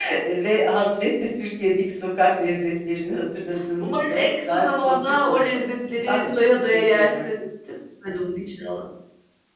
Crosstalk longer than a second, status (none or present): present